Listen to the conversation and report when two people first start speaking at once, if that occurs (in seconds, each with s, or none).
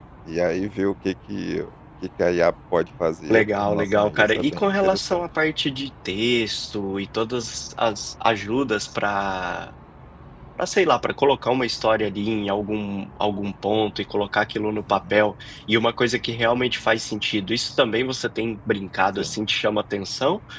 3.3 s